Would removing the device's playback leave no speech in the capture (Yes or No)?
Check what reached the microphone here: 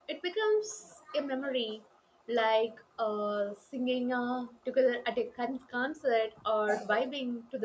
No